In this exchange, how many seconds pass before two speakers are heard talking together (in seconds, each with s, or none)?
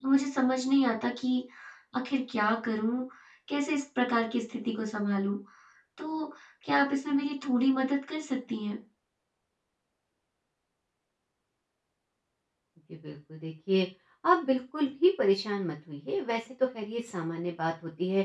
none